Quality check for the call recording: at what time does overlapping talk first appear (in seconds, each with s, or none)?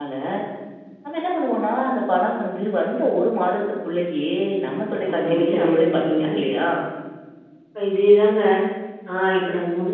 5.1 s